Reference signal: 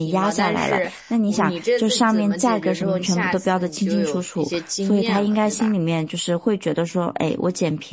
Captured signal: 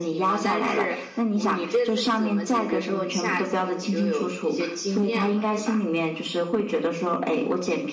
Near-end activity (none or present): none